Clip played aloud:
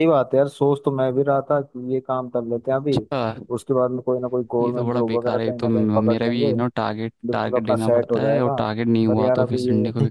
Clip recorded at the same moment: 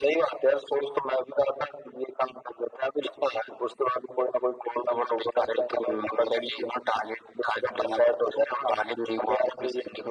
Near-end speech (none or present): none